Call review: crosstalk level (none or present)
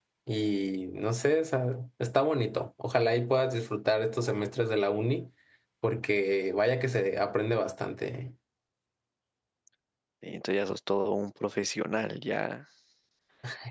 none